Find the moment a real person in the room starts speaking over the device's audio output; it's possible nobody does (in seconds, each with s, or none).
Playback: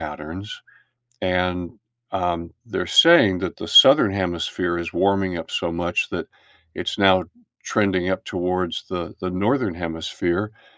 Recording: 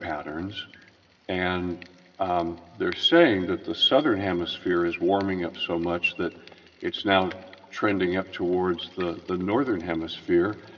none